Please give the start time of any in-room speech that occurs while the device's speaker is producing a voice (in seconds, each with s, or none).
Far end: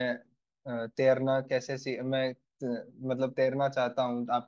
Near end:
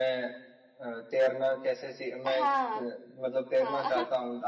2.2 s